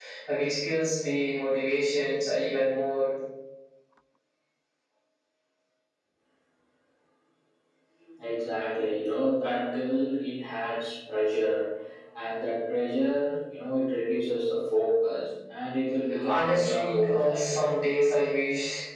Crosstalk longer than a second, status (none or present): present